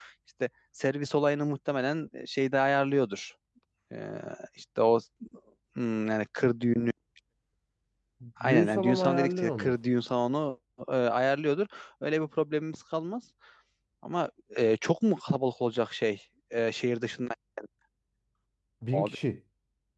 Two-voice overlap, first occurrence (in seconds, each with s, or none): 8.4 s